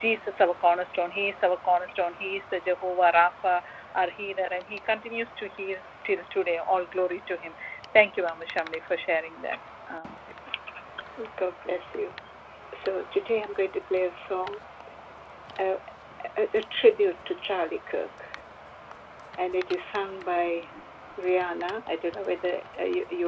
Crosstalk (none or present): none